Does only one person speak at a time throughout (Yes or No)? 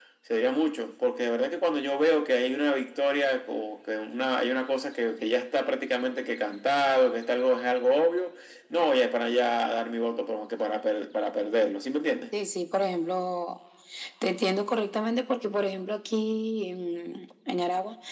Yes